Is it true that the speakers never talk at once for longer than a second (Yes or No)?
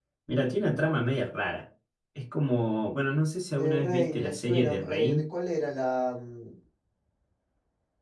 No